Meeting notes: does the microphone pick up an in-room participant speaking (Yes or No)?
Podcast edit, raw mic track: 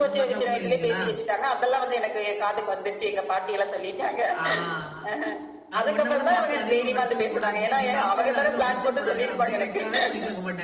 Yes